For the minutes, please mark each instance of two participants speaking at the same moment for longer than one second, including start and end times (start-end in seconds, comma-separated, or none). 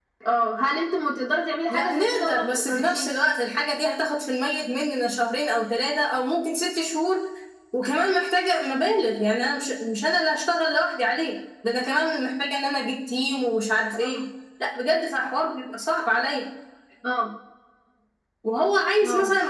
1.7-3.0